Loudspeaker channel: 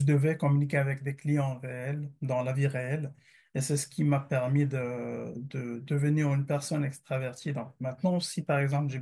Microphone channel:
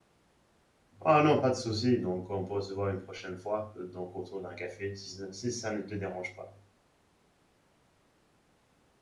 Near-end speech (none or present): present